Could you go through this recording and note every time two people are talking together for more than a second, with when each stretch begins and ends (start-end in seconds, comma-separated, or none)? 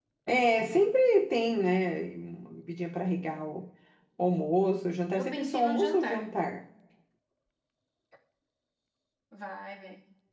5.2-6.4